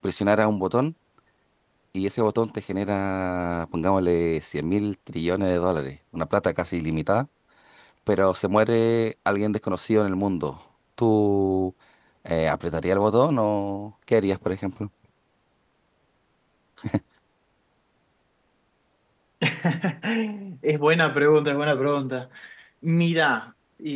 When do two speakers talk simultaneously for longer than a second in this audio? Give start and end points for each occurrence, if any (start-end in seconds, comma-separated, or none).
none